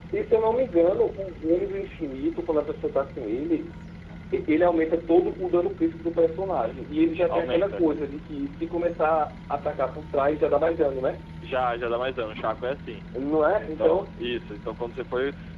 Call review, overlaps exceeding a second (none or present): none